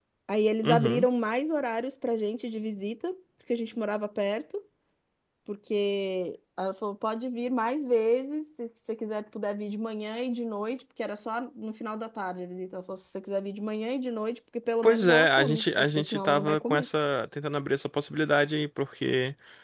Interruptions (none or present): present